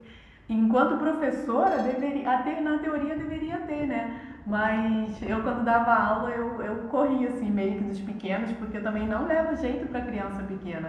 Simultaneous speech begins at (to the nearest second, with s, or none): none